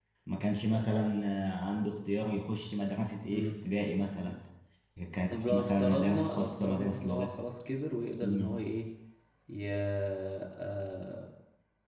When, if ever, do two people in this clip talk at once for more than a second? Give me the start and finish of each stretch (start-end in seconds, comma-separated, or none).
5.5-7.3